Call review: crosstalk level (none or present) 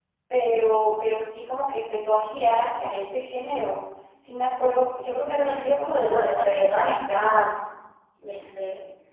present